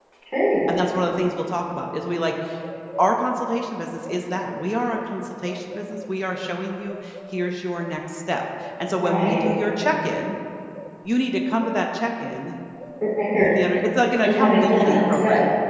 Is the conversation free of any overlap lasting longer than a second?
No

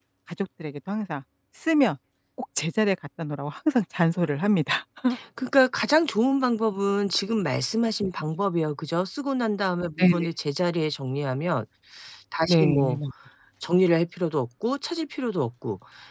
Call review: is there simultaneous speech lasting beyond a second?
No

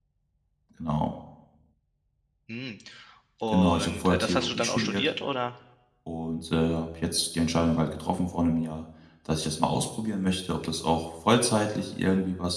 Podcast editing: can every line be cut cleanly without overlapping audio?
No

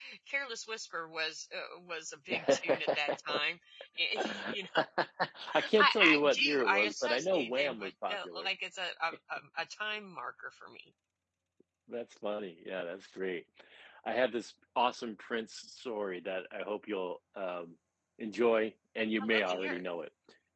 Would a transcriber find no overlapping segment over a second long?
No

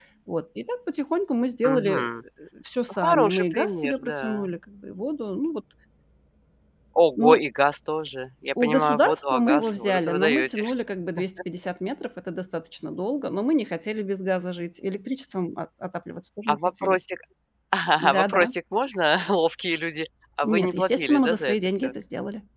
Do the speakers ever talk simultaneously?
Yes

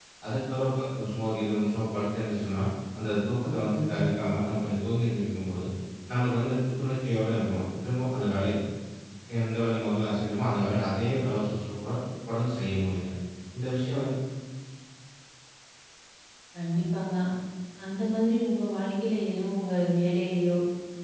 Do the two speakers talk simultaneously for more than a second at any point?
No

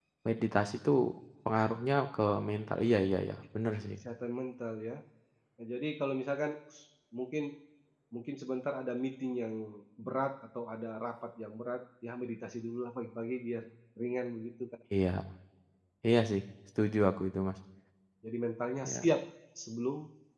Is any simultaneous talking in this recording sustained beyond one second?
No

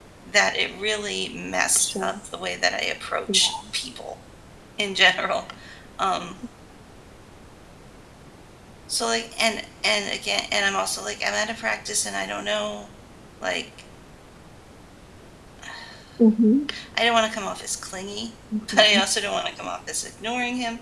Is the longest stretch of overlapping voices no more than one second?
Yes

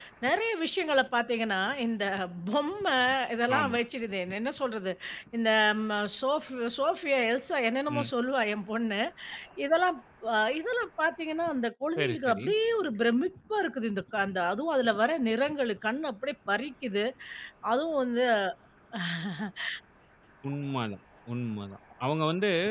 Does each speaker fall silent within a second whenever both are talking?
Yes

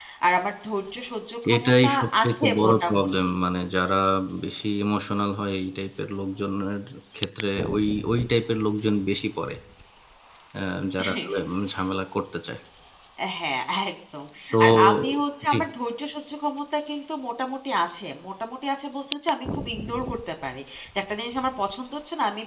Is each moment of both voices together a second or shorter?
No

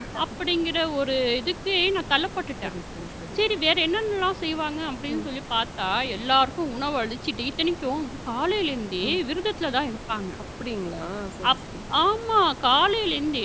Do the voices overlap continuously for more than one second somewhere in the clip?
No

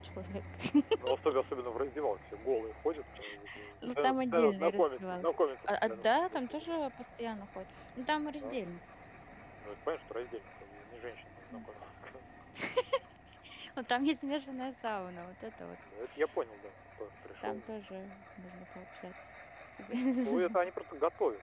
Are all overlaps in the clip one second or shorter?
No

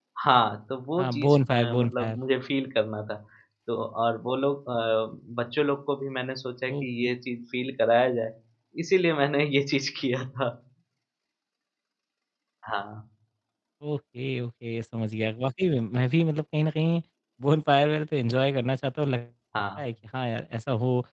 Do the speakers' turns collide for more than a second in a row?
Yes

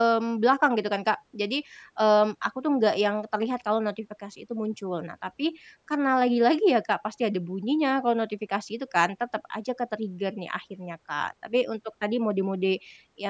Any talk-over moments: No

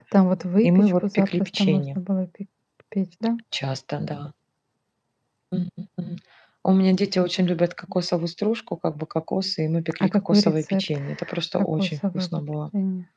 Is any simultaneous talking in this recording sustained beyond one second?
Yes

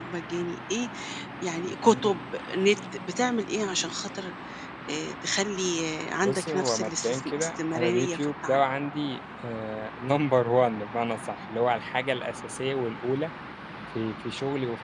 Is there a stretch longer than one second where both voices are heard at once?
Yes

